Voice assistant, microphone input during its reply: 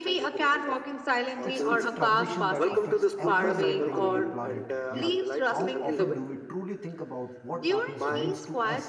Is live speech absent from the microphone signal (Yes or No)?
No